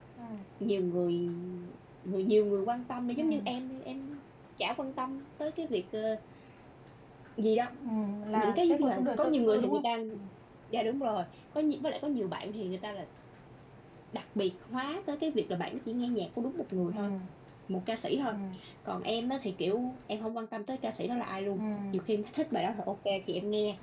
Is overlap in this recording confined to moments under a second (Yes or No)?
No